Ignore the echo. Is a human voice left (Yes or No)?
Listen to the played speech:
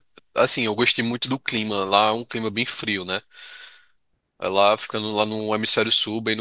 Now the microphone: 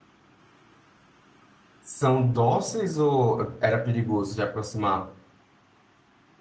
Yes